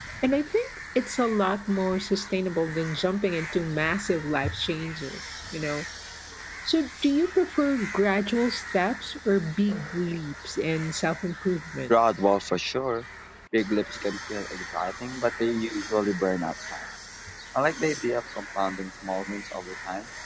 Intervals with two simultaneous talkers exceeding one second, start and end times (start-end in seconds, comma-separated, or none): none